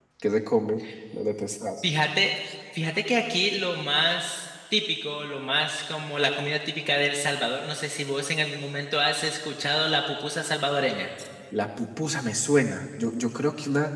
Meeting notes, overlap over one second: none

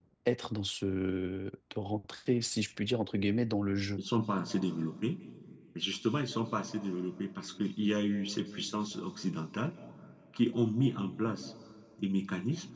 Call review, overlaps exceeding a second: none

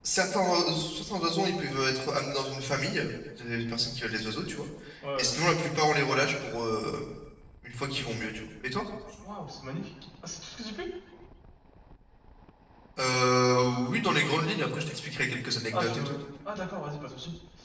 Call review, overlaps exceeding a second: none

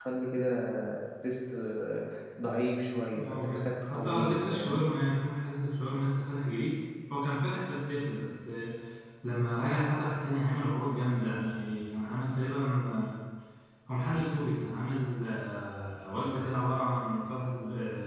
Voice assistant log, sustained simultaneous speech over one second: present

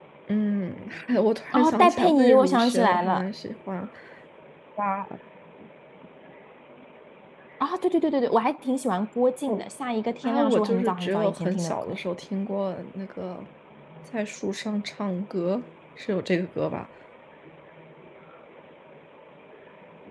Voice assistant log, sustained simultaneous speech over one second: present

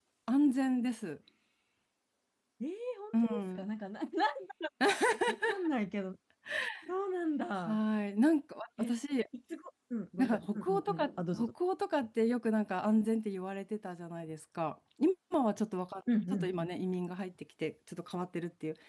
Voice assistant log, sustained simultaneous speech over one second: present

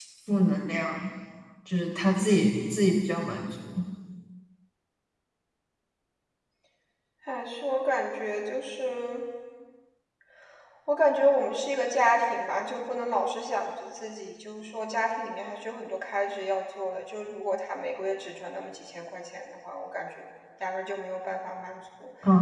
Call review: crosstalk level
none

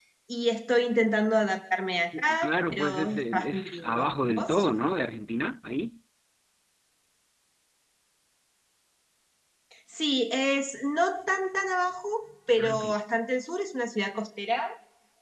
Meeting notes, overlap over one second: present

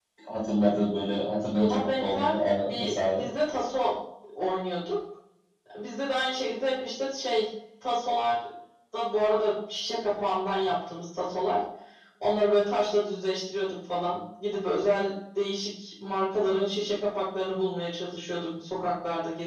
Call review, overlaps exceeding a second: present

